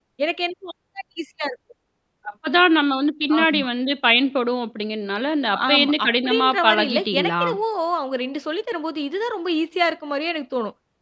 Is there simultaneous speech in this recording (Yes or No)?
Yes